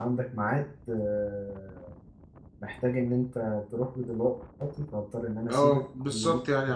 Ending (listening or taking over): taking over